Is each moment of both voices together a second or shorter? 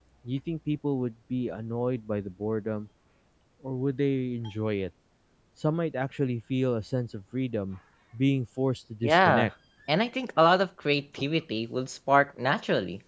Yes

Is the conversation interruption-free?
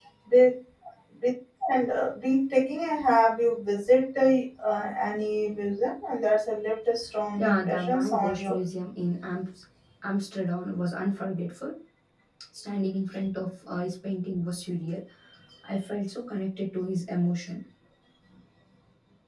No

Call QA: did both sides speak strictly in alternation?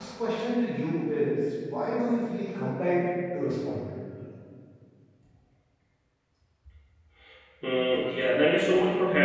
Yes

